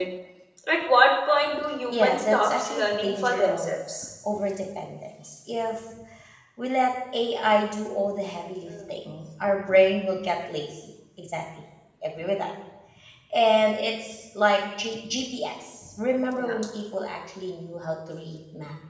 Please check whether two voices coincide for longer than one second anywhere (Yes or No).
Yes